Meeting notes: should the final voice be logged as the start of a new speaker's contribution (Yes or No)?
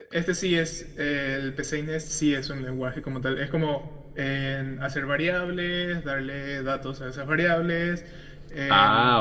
No